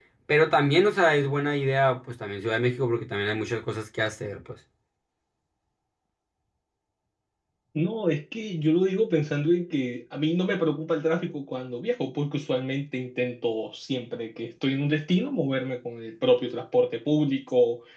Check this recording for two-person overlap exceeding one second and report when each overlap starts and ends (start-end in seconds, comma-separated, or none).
none